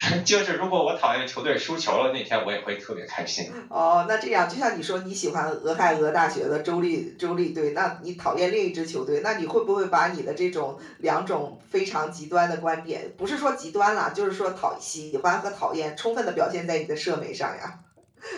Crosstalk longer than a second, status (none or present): none